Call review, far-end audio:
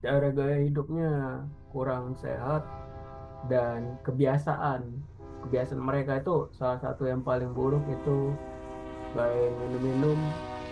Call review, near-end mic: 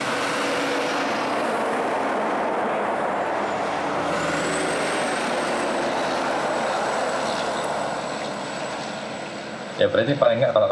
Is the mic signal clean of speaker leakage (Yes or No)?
Yes